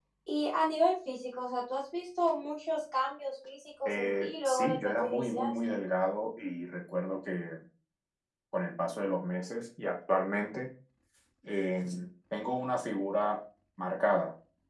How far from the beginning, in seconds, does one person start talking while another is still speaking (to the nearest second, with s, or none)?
4 s